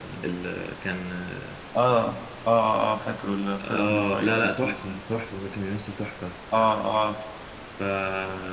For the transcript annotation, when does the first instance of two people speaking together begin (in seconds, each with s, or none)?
3.6 s